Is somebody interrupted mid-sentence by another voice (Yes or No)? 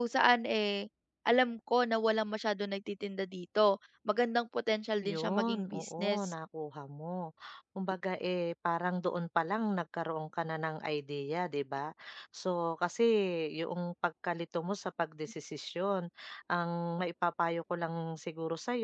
Yes